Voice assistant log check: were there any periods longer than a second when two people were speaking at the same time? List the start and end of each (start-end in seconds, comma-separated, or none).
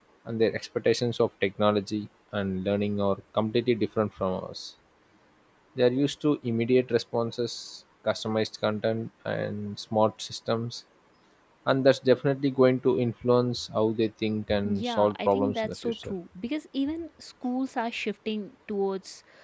14.6-16.1